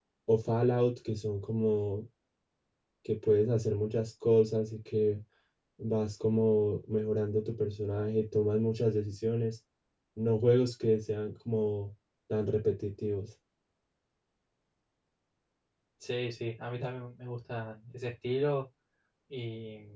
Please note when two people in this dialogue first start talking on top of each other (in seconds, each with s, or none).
none